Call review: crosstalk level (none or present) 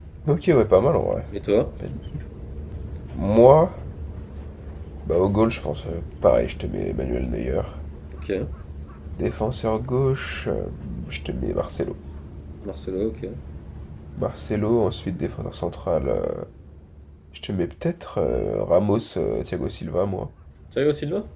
none